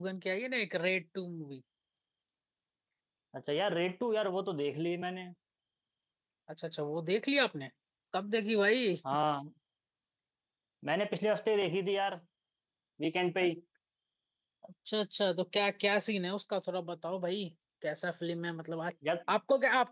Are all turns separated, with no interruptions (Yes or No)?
Yes